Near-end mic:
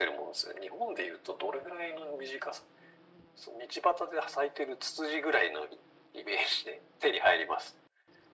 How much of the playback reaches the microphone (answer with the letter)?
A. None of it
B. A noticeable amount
B